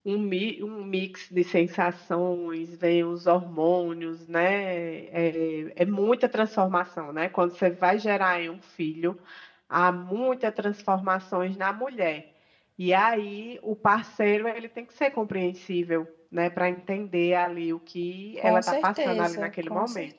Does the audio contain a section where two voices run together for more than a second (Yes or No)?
Yes